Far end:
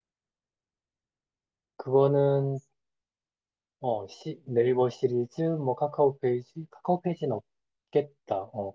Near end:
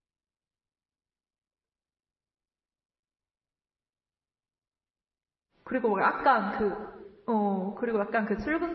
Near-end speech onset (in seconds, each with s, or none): 5.6 s